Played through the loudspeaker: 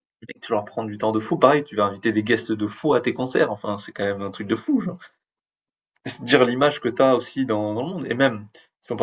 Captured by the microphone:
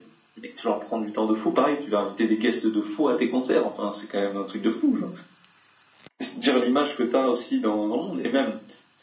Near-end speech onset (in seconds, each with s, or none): none